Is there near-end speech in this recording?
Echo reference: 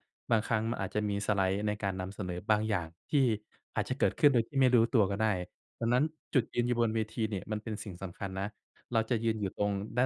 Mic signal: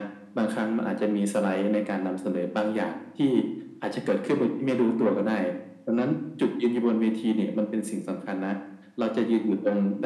No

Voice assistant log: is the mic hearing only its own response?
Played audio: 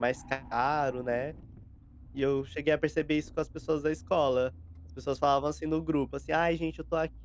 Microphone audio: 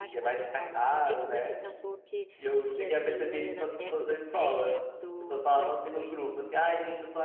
No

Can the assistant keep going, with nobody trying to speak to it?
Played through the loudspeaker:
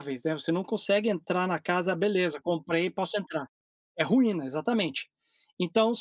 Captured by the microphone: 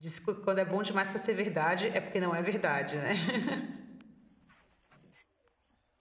No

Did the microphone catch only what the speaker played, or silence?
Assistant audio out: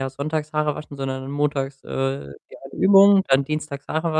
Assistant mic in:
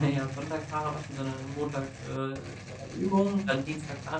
Yes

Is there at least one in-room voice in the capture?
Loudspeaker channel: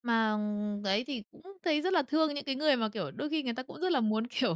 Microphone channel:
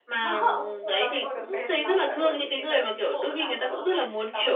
Yes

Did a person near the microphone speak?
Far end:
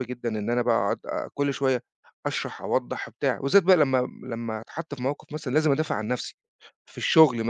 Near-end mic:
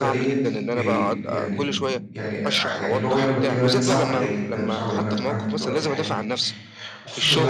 Yes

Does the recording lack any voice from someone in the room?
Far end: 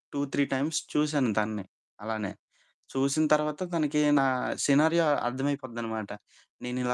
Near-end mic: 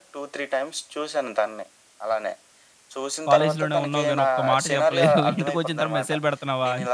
No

